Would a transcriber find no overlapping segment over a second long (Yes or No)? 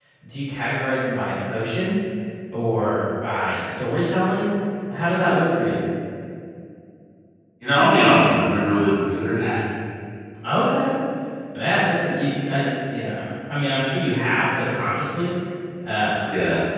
Yes